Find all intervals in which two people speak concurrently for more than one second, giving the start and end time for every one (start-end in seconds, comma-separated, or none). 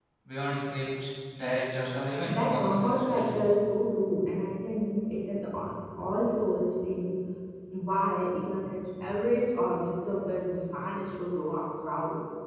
2.2-3.5